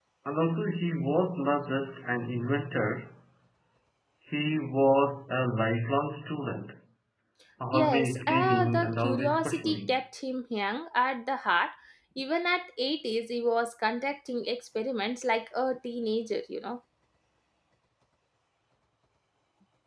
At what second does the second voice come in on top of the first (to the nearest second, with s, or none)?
8 s